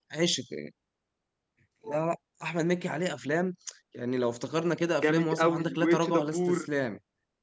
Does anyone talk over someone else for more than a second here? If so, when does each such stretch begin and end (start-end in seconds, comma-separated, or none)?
5.0-6.6